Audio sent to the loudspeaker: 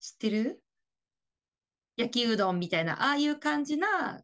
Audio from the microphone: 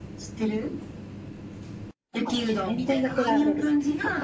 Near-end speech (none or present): present